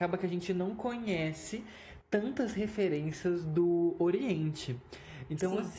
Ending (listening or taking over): listening